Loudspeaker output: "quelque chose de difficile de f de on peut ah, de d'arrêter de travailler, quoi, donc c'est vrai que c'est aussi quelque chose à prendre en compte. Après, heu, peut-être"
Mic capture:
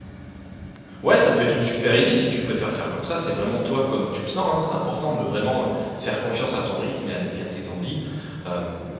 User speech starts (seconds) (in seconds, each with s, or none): 1.0 s